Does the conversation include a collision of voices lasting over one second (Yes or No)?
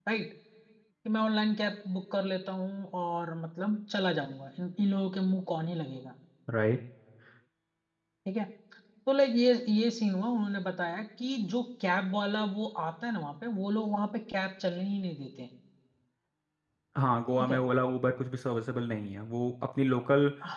No